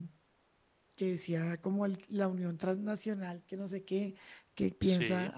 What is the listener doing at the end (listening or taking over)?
listening